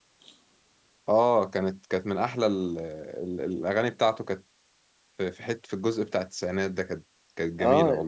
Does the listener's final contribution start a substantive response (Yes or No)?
Yes